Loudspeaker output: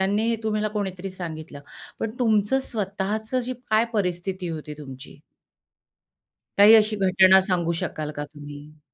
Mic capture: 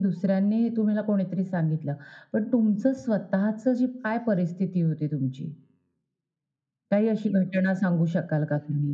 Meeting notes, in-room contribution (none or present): none